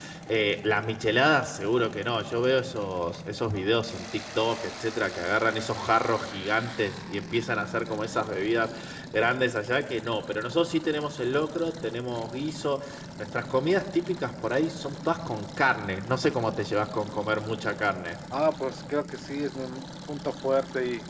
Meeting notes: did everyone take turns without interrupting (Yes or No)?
Yes